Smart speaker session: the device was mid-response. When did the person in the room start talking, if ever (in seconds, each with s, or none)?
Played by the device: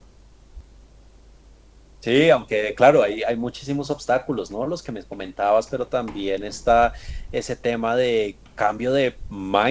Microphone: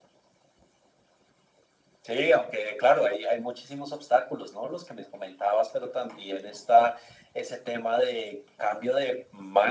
none